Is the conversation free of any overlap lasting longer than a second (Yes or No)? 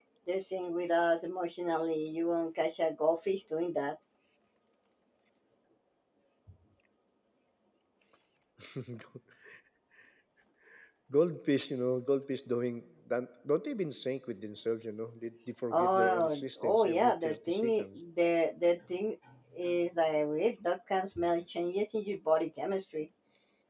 No